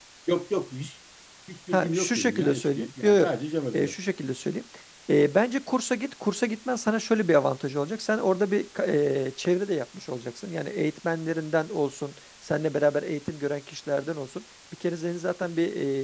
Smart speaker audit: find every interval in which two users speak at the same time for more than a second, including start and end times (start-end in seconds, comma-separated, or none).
1.7-3.3